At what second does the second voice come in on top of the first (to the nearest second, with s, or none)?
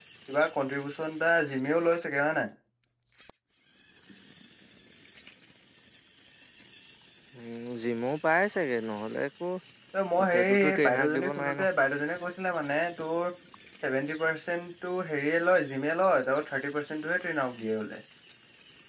10 s